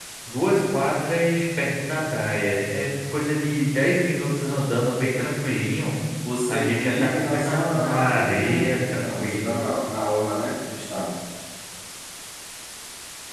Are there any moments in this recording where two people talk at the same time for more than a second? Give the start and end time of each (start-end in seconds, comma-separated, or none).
6.5-9.5